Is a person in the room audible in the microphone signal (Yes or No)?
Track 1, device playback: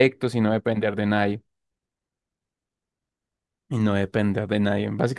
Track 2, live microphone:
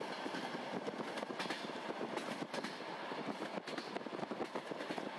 No